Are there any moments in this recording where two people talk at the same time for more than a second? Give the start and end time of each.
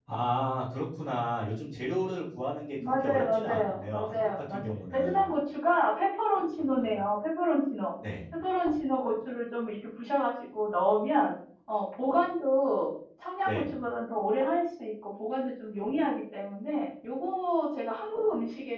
2.9-5.2

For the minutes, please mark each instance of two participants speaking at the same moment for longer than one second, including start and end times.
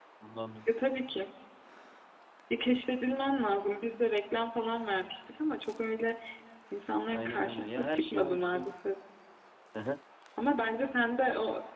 7.1-8.7

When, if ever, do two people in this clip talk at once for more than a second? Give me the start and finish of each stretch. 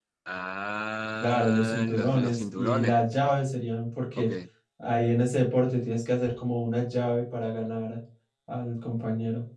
1.2-3.4

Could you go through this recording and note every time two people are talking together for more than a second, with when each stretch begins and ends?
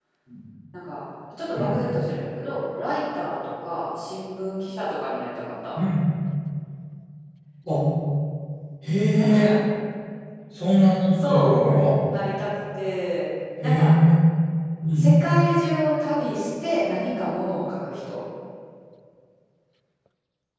none

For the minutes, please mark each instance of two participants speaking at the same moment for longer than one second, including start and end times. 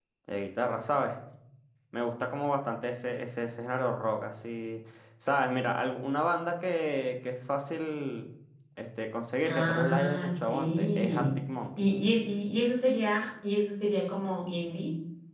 9.4-11.3

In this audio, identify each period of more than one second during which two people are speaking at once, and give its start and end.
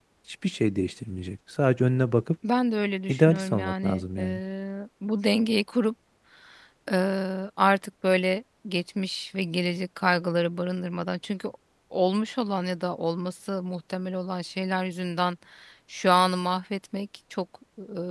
3.1-4.4

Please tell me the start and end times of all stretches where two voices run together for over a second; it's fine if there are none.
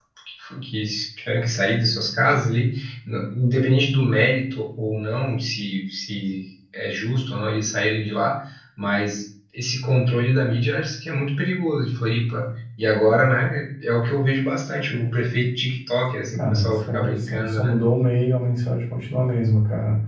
16.4-17.8

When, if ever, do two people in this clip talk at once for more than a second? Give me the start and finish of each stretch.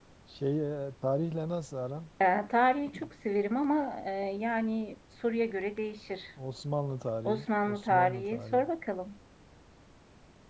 7.2-8.7

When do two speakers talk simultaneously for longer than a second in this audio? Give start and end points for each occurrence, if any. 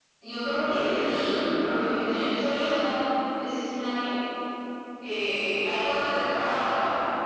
0.6-2.1

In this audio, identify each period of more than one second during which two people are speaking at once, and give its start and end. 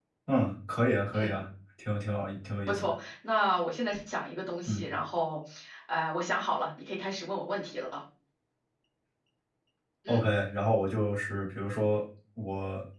none

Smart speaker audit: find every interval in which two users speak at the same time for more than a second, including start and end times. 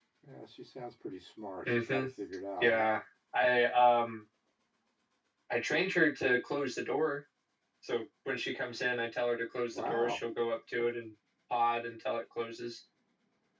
none

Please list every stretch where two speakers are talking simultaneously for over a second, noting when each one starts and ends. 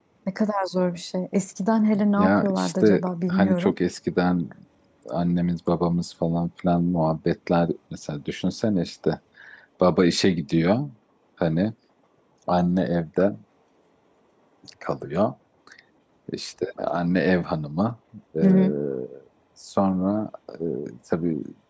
2.2-3.7

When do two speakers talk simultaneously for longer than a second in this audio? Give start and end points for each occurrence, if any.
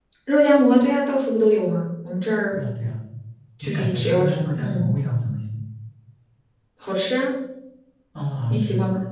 3.6-4.8

